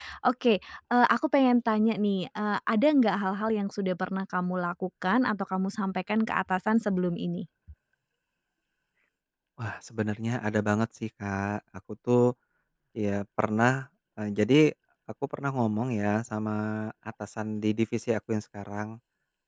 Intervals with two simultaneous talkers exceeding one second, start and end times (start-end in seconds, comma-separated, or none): none